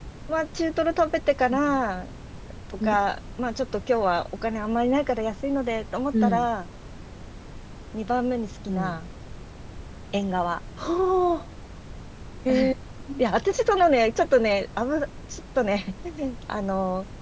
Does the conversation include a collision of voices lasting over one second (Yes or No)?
No